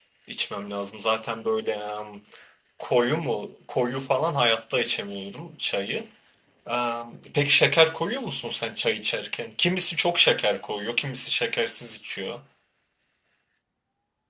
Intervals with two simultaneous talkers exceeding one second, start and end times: none

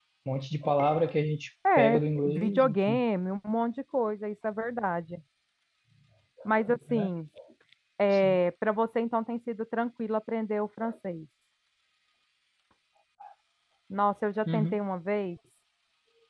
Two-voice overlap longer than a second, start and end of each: 1.8-3.0

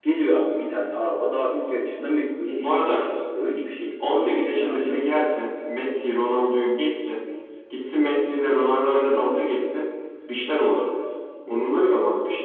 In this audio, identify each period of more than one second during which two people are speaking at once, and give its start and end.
4.0-5.4

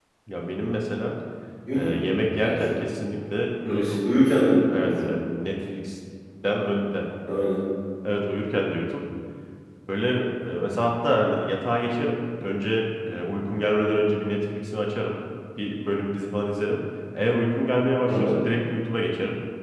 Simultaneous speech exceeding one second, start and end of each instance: none

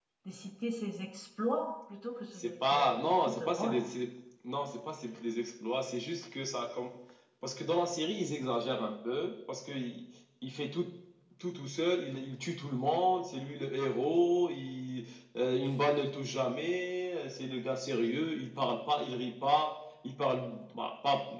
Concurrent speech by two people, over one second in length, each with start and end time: 2.4-3.8

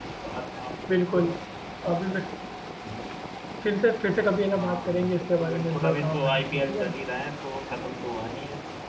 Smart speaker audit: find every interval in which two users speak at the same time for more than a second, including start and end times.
4.6-6.9

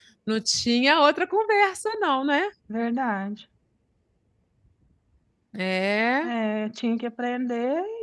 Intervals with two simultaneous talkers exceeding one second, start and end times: none

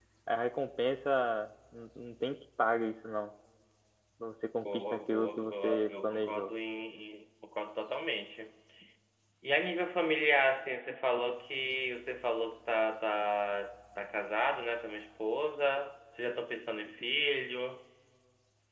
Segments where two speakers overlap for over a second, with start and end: 4.7-6.5

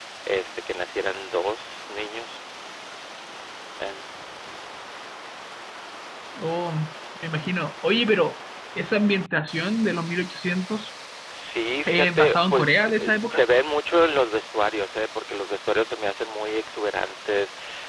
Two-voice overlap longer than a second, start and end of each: 11.9-13.4

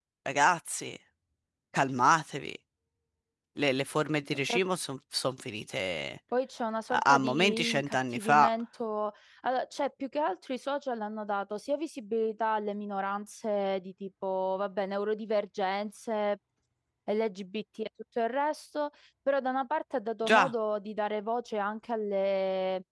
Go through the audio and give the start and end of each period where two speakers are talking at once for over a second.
6.9-8.5

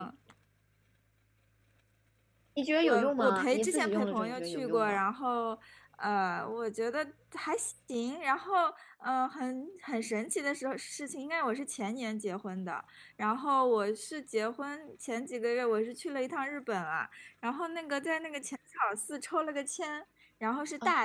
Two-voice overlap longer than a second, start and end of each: 2.8-5.0

